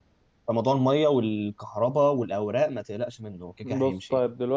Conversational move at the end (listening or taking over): taking over